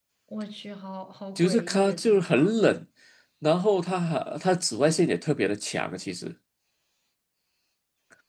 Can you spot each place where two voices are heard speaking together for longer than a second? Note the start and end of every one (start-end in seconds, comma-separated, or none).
1.4-2.6